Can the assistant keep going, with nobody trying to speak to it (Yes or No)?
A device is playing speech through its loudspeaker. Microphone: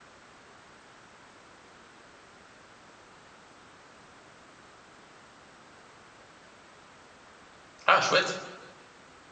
No